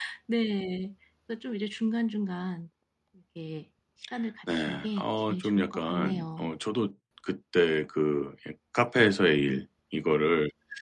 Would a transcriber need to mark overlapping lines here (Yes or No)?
Yes